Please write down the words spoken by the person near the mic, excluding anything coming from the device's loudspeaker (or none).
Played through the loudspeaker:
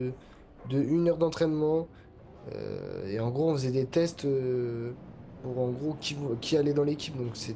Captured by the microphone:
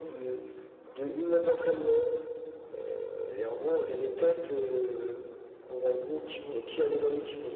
none